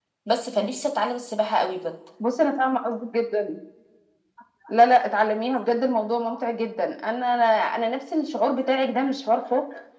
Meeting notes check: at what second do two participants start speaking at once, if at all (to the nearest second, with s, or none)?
none